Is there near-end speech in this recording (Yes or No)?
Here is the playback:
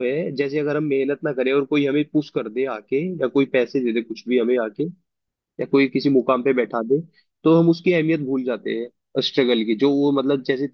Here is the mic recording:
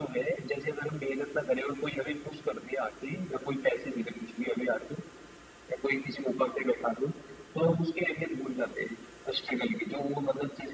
No